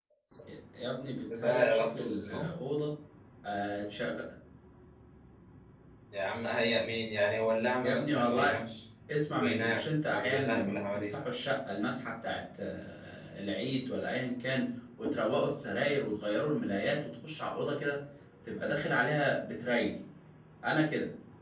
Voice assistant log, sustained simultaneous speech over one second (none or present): present